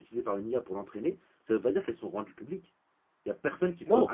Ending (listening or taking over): listening